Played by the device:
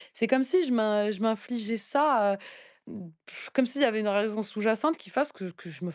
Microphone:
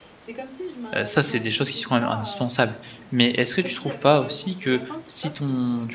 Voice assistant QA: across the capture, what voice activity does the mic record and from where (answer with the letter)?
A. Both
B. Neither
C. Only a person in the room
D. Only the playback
A